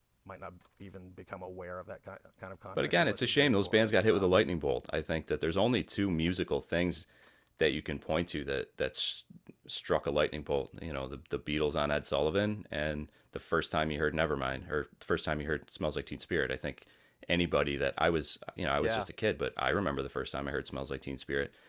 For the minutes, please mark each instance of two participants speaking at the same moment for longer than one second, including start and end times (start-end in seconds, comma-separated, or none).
2.8-4.4